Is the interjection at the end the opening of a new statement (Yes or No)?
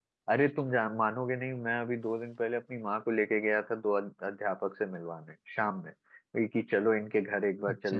No